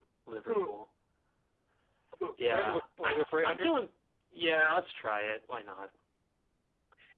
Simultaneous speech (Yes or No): Yes